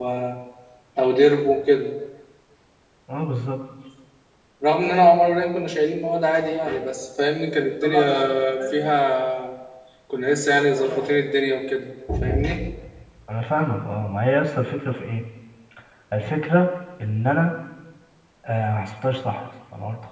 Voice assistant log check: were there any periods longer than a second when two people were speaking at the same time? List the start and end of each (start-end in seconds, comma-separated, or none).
none